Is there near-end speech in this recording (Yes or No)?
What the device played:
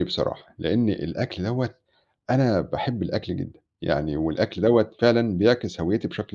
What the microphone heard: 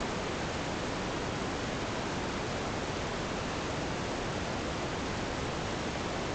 No